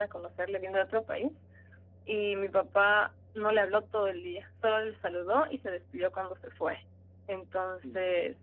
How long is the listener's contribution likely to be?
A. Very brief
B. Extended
A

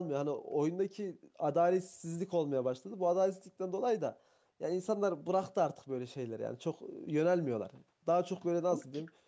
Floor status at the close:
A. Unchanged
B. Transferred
A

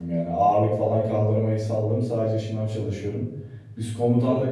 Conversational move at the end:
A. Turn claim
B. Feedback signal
B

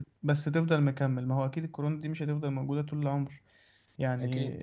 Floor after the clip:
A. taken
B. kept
B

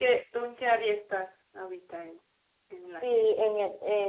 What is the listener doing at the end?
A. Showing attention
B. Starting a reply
B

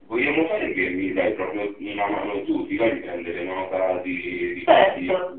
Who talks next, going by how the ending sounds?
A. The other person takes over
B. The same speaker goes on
A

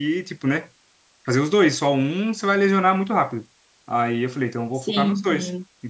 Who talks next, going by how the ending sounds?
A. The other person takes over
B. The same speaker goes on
B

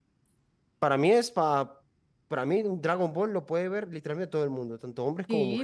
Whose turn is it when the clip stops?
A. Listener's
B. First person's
A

